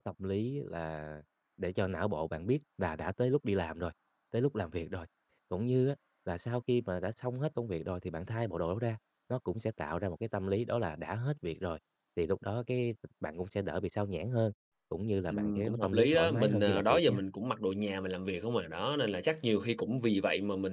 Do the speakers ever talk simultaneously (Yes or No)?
Yes